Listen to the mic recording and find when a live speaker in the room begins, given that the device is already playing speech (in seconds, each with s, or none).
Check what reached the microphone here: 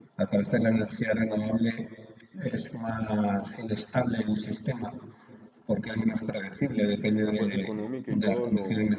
7.2 s